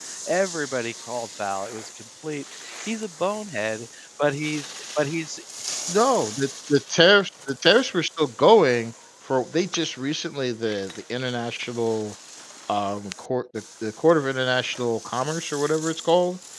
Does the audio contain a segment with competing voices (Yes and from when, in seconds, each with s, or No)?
No